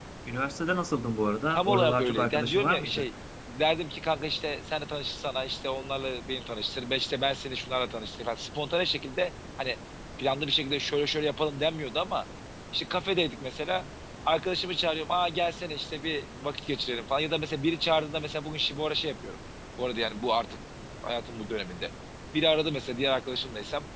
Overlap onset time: 2 s

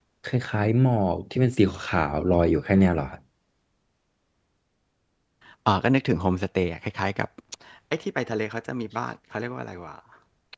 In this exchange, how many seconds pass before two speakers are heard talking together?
none

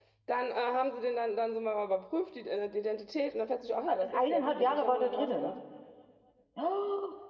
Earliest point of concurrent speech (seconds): 4 s

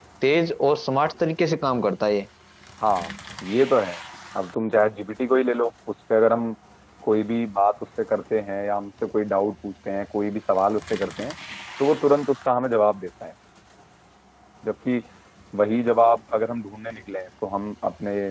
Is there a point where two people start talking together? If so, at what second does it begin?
none

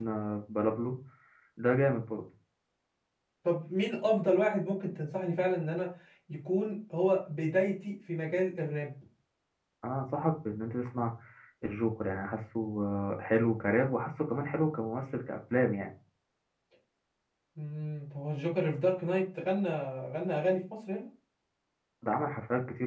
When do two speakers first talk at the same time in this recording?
none

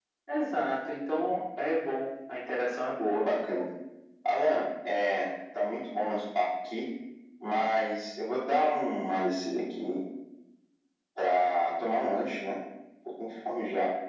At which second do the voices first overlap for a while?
none

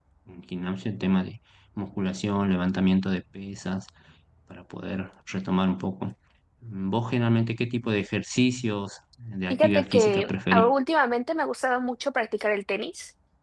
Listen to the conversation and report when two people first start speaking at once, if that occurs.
10 s

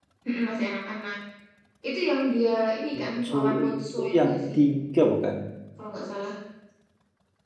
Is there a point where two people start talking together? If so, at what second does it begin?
3 s

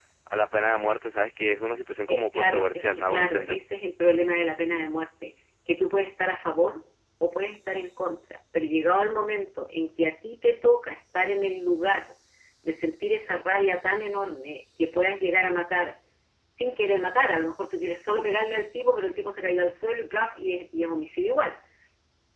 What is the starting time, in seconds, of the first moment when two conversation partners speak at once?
2 s

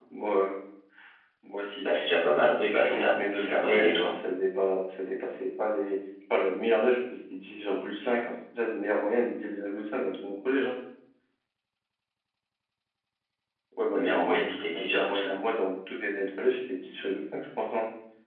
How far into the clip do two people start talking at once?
3 s

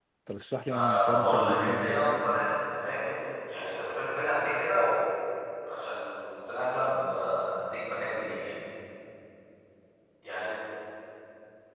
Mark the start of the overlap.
1 s

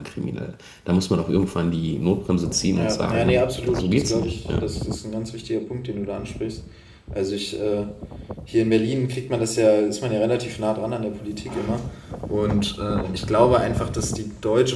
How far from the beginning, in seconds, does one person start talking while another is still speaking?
3 s

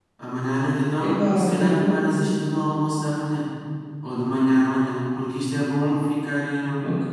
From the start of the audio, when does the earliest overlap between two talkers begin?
1 s

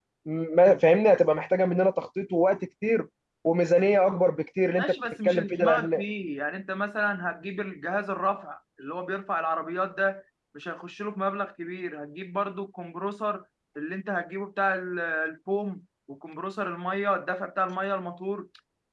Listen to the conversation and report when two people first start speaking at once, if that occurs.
5 s

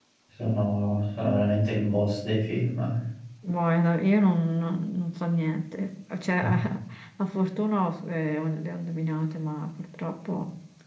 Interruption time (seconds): none

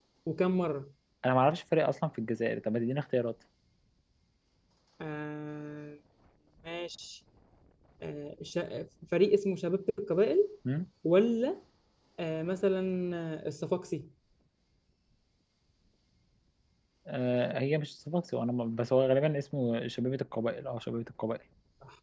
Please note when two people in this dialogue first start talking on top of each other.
none

